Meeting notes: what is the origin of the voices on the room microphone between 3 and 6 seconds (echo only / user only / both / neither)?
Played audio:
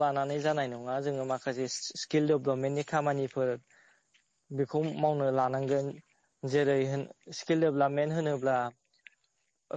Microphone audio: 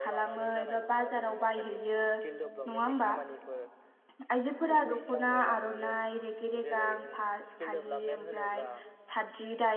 both